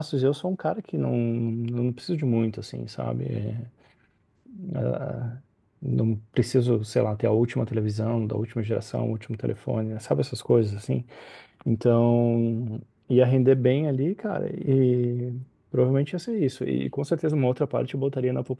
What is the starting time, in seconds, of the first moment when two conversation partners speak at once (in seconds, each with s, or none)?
none